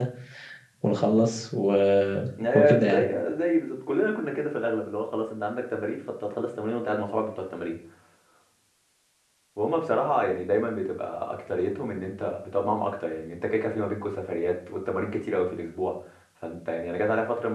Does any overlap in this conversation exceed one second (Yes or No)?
No